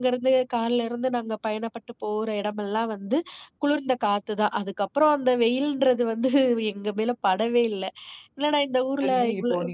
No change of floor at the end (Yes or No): No